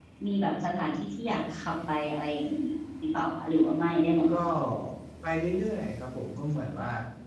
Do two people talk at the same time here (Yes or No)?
No